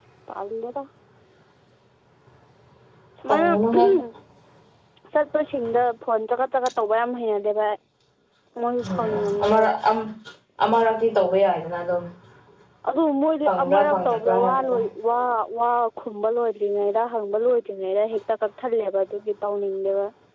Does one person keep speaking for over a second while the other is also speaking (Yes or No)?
Yes